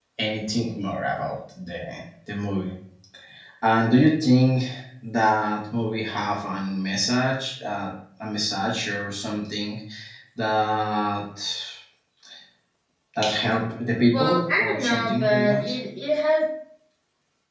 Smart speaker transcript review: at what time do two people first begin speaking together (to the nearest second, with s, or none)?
14 s